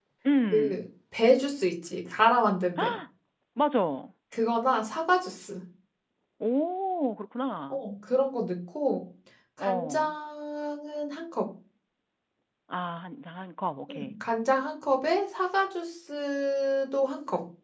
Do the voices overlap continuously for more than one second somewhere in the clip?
No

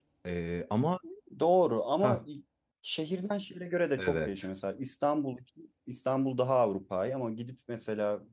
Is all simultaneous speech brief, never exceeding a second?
Yes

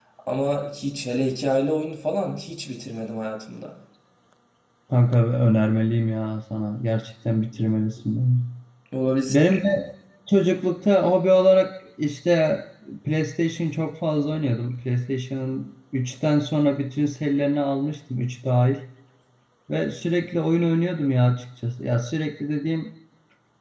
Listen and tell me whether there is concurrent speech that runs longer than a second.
No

